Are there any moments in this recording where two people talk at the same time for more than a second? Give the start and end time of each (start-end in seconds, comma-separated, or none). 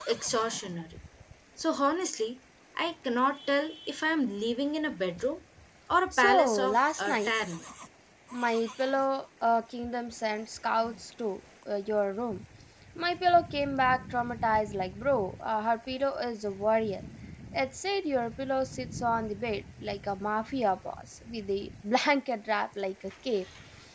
6.1-7.3